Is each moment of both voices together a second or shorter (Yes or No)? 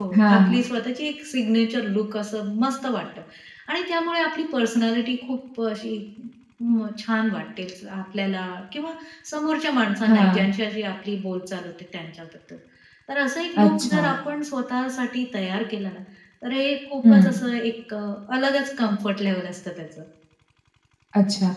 Yes